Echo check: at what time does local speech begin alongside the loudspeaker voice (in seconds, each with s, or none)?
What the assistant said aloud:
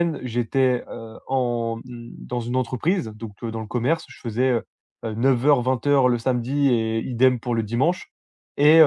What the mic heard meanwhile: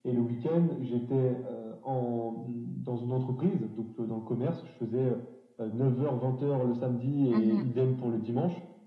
7.3 s